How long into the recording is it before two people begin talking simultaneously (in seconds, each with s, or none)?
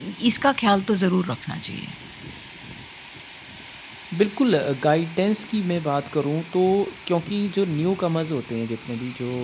none